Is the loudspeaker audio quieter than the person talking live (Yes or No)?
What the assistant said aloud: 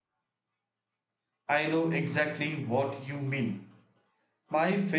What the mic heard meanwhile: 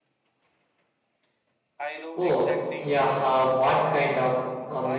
Yes